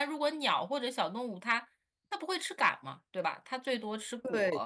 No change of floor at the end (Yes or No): No